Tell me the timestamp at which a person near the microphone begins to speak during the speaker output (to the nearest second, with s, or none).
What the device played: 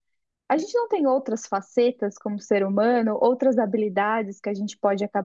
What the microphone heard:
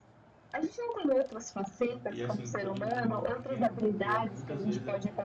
2 s